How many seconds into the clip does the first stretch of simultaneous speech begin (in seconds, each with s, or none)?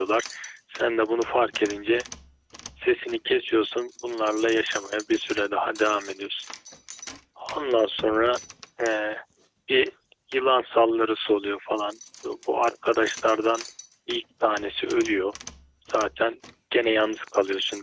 none